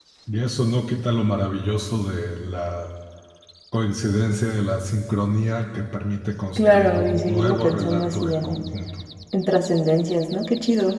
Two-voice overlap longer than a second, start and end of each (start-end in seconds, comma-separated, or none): 6.6-8.6